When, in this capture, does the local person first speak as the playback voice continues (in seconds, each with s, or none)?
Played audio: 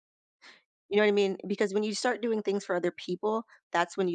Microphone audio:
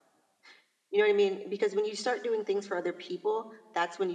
none